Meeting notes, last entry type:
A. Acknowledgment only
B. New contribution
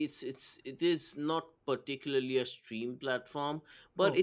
A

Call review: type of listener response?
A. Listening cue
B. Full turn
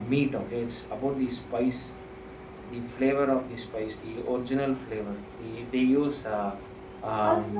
B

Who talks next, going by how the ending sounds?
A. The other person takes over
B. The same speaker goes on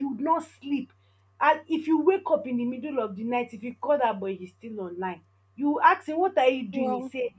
B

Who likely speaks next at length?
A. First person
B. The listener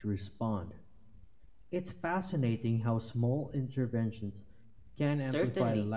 B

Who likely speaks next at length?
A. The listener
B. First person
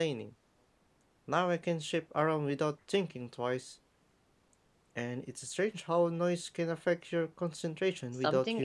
A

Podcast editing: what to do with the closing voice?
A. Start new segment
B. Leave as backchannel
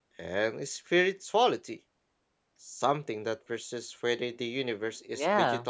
A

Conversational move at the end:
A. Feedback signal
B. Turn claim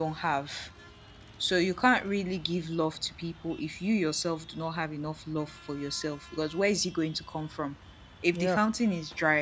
A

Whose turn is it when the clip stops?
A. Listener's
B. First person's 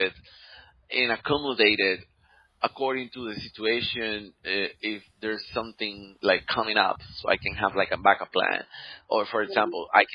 B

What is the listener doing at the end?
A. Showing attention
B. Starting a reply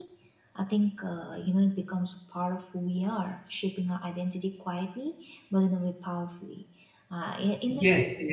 B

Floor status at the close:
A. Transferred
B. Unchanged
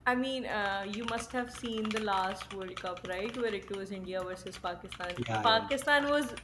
B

